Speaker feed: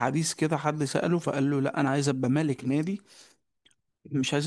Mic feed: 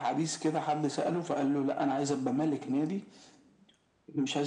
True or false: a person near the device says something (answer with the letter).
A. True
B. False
B